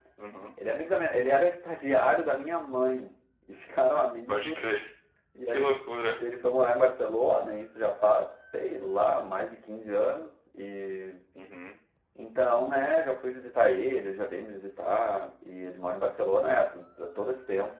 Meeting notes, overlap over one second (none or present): none